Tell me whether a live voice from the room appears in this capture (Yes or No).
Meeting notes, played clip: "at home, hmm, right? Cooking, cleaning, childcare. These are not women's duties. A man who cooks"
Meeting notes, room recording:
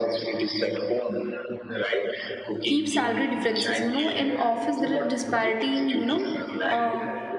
Yes